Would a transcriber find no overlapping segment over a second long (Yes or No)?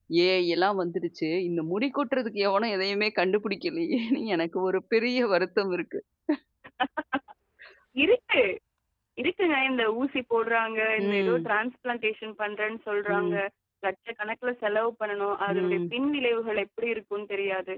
Yes